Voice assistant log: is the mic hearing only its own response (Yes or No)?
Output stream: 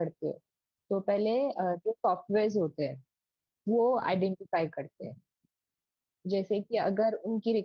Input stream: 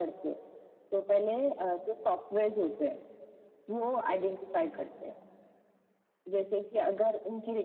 No